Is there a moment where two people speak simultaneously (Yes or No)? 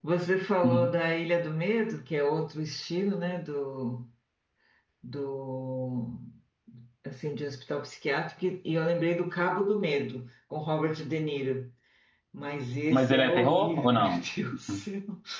Yes